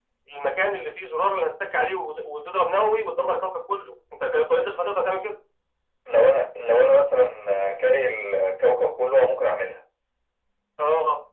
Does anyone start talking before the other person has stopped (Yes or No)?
No